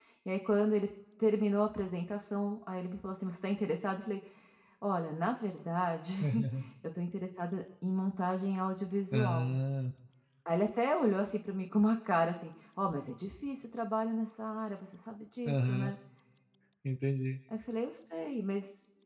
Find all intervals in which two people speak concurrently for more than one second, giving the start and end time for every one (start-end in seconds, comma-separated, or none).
none